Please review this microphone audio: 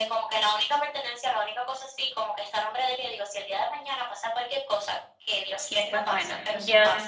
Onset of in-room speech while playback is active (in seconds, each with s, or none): 5.5 s